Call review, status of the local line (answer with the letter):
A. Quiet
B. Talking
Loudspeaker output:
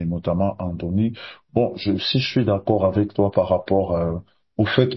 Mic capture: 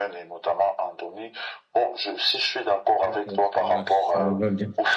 B